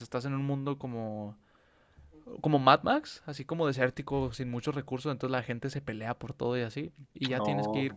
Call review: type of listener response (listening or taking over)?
listening